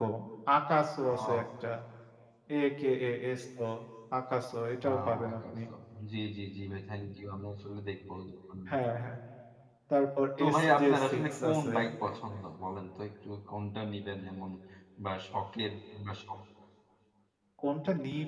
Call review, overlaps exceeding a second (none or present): present